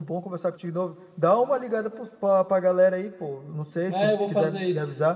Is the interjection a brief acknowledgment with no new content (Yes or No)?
No